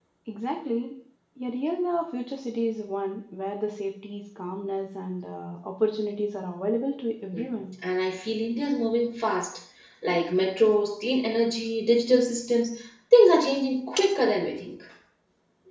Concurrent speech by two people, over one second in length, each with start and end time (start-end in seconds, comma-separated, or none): none